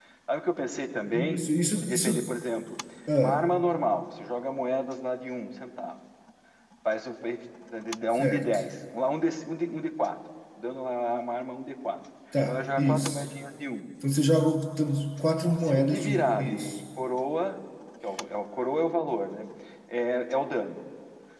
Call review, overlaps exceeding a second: present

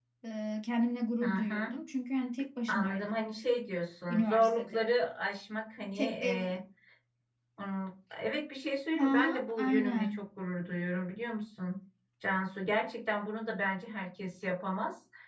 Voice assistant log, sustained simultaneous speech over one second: present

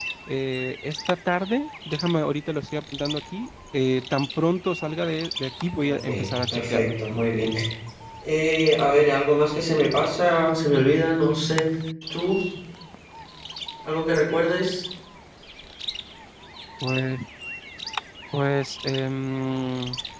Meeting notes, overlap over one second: none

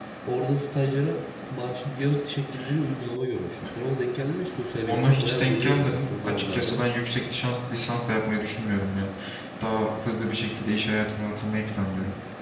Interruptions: present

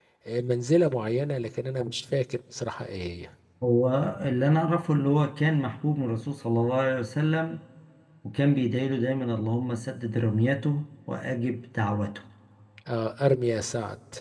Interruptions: none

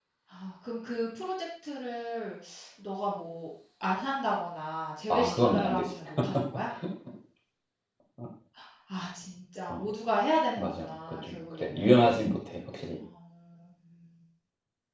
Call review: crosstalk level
present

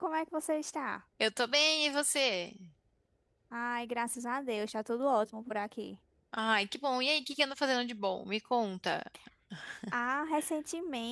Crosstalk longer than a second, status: none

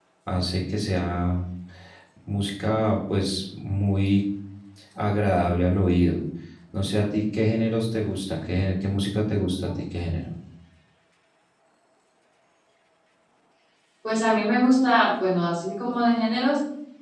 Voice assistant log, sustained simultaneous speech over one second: none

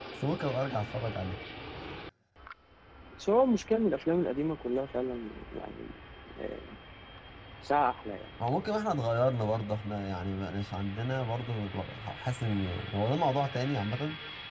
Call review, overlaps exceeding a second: none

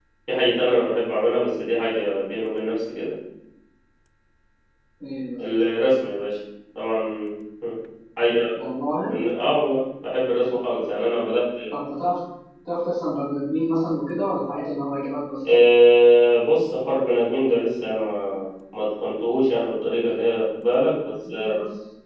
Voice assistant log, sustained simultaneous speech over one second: none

